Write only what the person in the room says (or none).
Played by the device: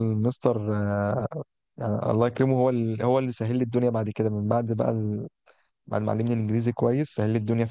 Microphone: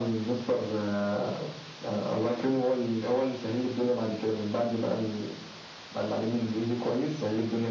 none